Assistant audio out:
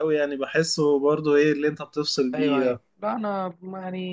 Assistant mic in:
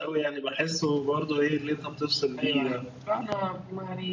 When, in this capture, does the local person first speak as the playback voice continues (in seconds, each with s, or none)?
none